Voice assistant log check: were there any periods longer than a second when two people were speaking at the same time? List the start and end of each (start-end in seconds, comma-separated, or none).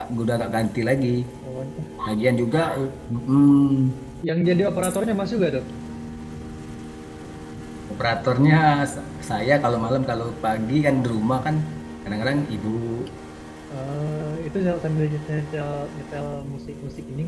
none